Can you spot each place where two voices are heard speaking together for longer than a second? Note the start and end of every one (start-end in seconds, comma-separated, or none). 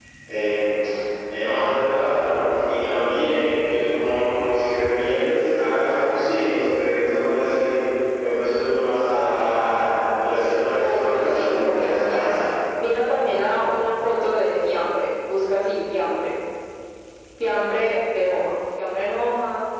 10.8-12.3